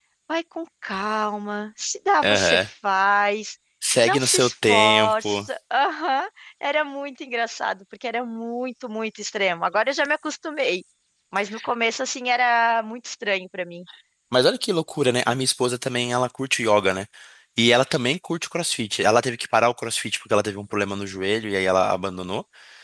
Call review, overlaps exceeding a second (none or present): present